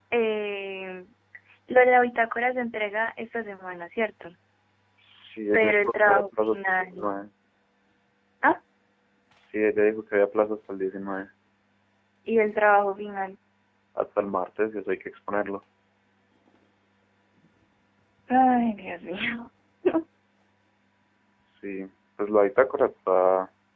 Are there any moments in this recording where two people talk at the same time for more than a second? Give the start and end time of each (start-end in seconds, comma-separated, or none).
5.5-6.8